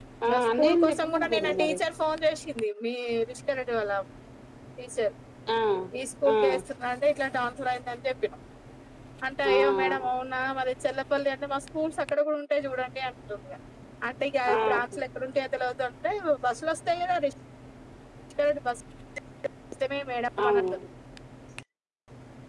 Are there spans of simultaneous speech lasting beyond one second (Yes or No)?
Yes